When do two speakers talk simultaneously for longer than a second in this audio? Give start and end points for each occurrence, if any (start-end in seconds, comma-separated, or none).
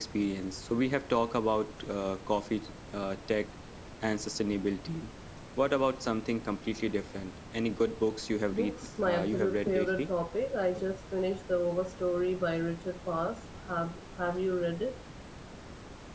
8.5-10.1